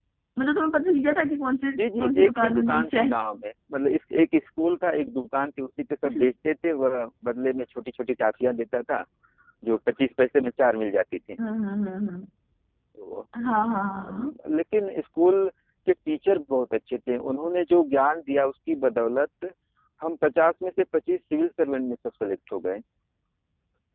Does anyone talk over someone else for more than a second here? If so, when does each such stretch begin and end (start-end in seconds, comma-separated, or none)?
1.8-3.2